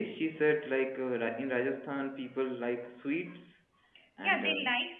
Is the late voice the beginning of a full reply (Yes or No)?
Yes